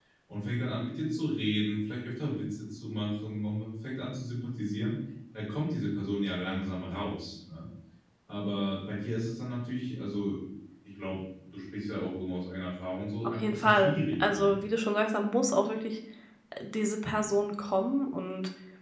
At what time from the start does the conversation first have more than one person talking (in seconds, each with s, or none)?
13.2 s